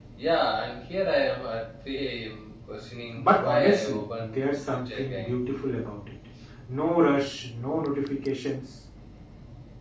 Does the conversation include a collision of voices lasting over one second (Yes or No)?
Yes